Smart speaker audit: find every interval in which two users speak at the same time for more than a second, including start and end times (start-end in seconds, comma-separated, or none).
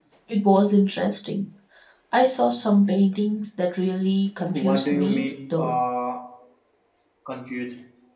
4.5-5.8